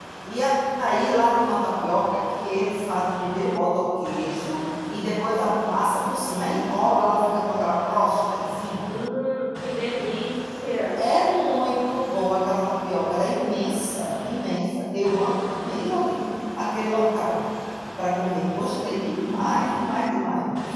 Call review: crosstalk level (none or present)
none